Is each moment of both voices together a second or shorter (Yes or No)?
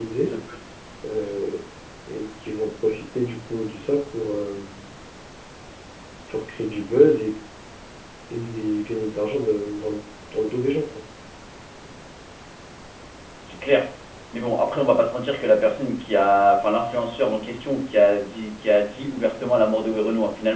Yes